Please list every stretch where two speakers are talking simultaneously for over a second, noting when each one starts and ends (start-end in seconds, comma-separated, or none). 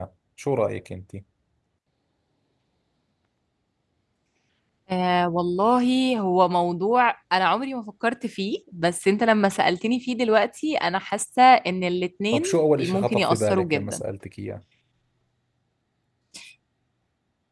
12.8-14.0